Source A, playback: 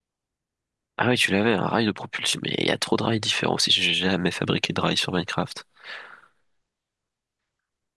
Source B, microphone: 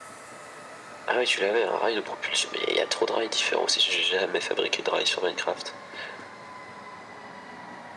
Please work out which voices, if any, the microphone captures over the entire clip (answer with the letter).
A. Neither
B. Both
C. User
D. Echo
D